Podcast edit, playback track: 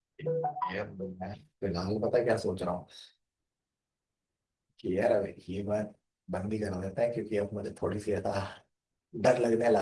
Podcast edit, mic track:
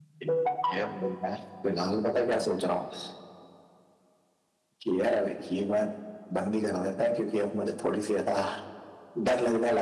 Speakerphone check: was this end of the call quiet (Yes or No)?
Yes